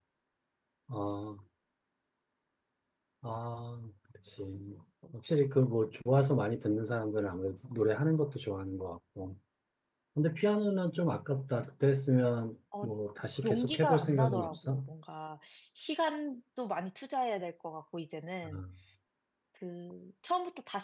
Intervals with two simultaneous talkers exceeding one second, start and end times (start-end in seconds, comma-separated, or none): 13.4-14.8